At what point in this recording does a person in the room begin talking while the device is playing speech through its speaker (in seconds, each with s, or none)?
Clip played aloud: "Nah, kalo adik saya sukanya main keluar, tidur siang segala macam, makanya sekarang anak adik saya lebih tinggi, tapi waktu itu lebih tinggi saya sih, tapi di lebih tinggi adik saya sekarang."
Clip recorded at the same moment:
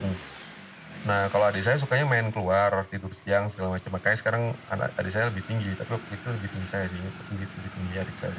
none